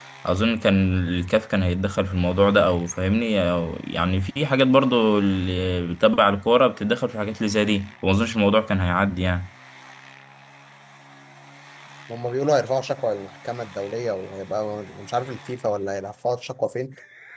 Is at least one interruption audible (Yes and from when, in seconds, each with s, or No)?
No